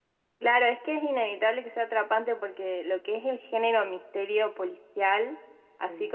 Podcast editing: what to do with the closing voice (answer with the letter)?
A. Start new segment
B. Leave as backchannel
B